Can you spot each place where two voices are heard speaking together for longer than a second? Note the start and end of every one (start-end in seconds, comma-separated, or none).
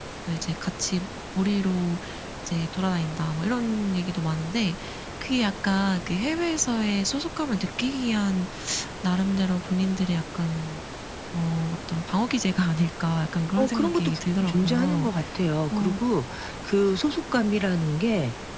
13.6-15.1